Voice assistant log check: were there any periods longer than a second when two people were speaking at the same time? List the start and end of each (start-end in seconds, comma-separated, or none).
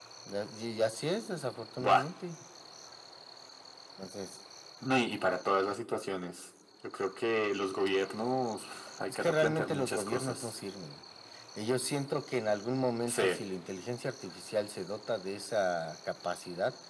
9.1-10.5